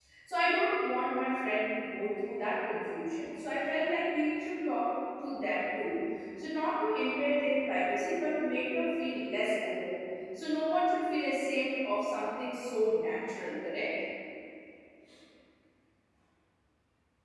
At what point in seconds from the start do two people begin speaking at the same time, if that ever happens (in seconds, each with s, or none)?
none